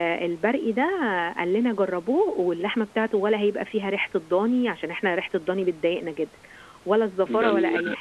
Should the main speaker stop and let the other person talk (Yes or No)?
Yes